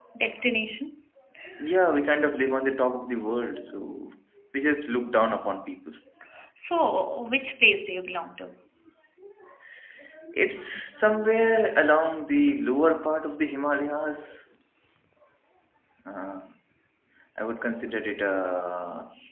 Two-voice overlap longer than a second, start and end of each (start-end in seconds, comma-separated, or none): none